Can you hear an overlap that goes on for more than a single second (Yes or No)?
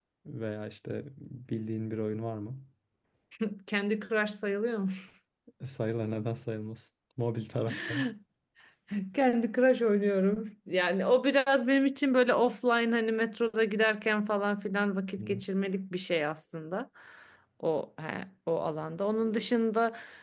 No